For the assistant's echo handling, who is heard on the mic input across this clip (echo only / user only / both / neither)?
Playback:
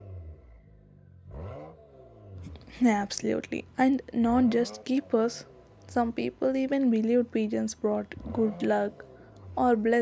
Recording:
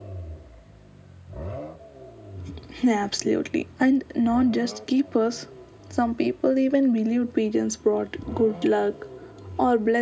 echo only